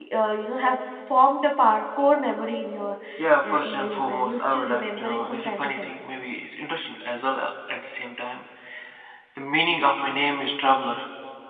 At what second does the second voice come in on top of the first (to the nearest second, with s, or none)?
3 s